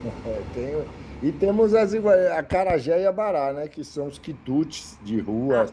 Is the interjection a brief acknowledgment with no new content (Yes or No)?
No